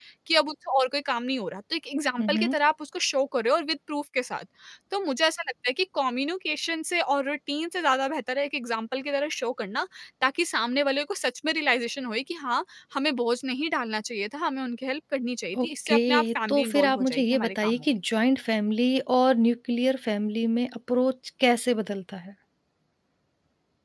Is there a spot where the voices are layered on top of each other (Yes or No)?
Yes